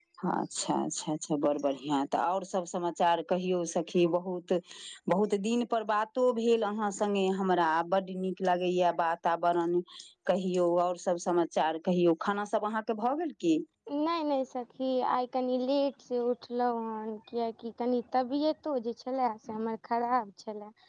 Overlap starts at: none

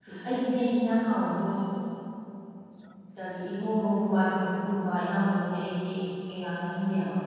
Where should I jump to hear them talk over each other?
none

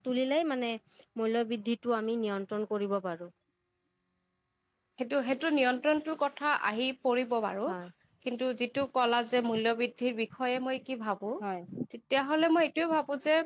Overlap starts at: none

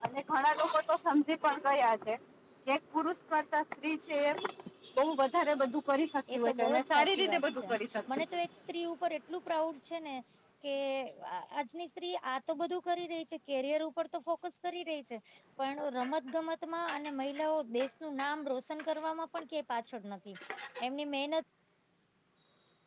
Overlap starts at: 6.3 s

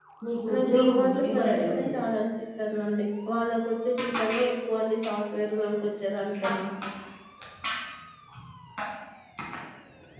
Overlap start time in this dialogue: 0.5 s

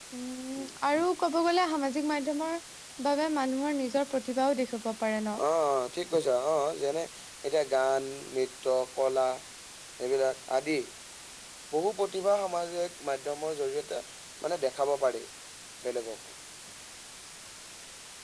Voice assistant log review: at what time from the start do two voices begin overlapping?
none

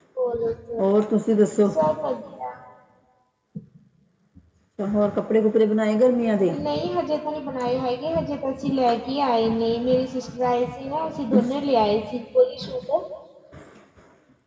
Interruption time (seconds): none

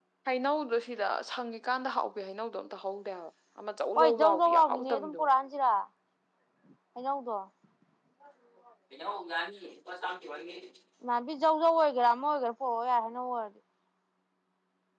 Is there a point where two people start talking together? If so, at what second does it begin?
4.0 s

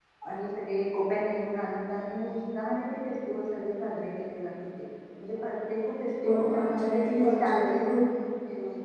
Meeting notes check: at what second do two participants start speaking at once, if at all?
6.2 s

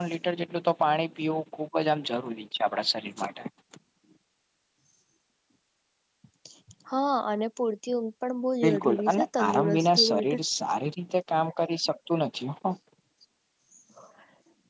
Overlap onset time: 8.6 s

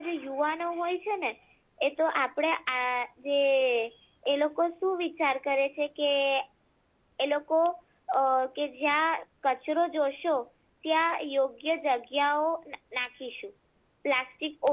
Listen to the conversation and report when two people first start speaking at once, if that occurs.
none

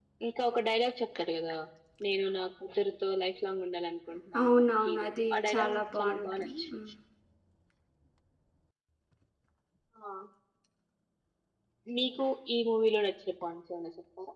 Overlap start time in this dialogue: 4.3 s

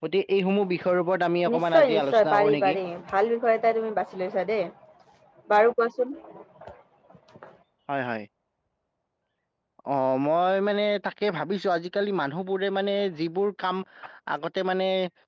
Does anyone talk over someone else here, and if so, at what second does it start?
1.4 s

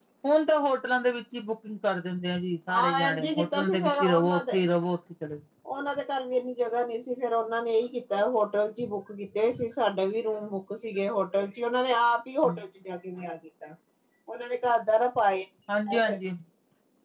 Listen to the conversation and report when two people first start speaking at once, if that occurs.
2.8 s

